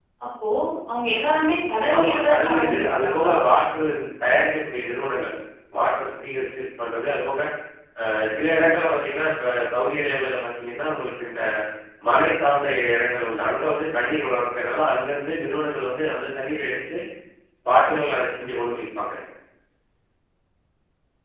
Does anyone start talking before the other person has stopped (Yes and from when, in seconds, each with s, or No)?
Yes, from 1.9 s